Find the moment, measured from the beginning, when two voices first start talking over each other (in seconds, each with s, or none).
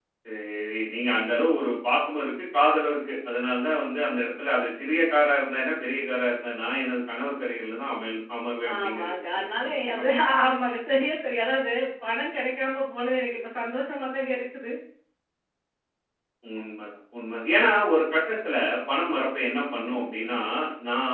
8.8 s